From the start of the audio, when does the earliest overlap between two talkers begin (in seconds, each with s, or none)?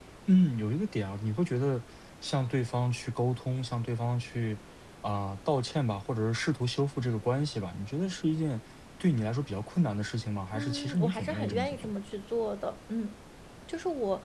10.5 s